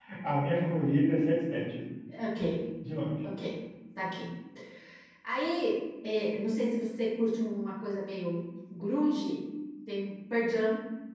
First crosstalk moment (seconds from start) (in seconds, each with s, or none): none